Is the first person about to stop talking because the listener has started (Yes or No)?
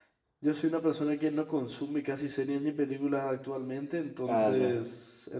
No